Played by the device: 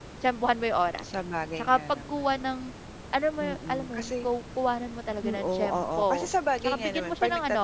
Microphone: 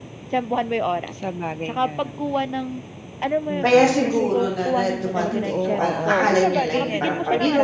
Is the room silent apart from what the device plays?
No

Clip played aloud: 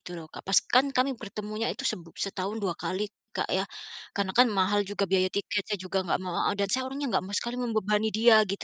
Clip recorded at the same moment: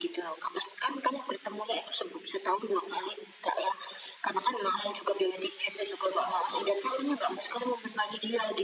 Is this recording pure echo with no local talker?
Yes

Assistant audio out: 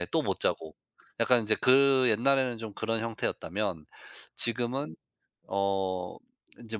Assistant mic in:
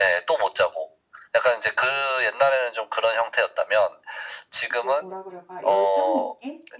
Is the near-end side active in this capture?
Yes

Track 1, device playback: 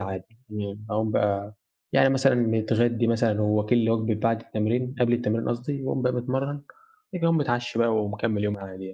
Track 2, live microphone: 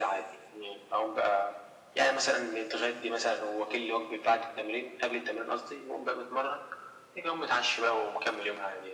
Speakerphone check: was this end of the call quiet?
Yes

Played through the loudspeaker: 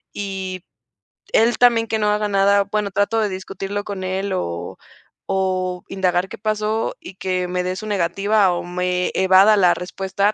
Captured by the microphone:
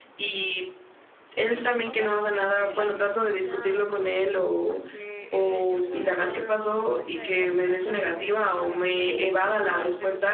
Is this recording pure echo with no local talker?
No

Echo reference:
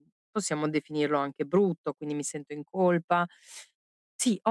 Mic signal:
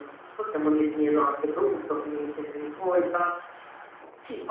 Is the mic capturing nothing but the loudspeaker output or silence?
Yes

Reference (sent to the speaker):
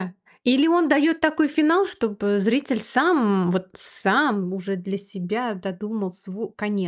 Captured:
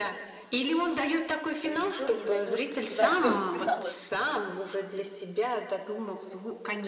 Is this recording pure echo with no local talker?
No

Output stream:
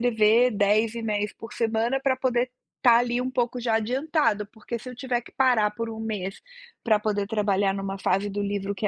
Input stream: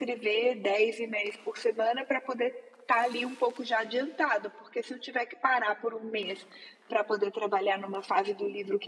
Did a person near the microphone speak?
No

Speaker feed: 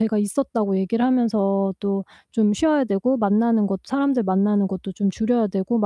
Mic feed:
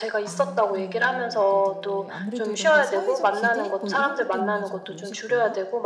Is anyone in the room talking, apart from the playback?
Yes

